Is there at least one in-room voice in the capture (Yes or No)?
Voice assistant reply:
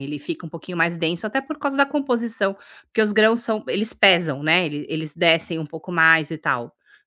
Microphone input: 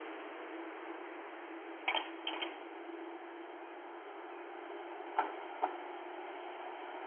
No